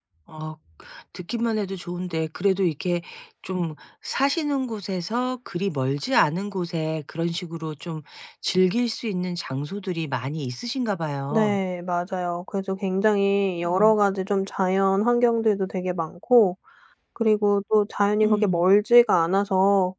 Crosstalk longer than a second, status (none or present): none